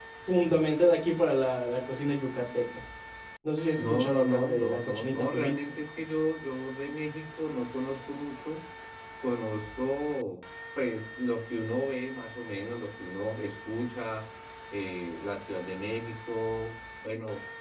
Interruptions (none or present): present